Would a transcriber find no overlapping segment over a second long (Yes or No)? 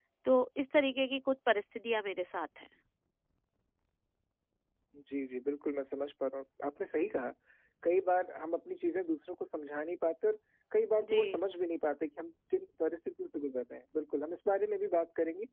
Yes